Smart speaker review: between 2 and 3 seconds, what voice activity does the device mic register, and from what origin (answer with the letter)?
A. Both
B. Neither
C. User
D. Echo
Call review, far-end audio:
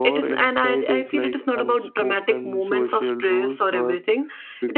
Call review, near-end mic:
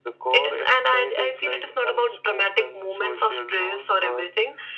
D